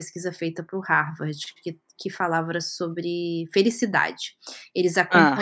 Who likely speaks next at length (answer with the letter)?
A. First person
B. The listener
A